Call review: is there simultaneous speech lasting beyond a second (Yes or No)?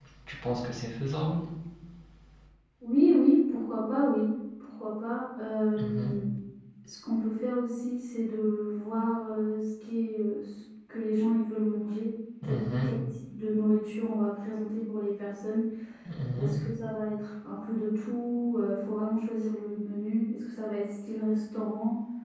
No